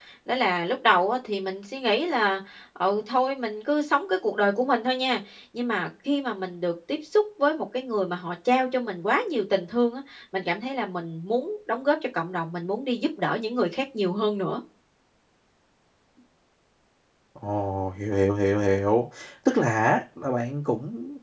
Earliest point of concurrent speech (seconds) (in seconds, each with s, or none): none